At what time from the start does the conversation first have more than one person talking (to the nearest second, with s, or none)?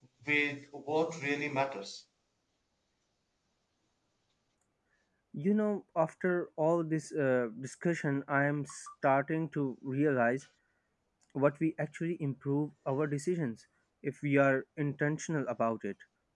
none